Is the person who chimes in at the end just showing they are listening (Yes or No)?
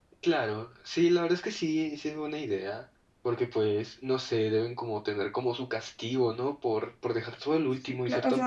No